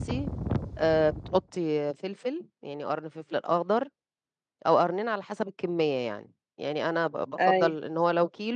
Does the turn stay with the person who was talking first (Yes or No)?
Yes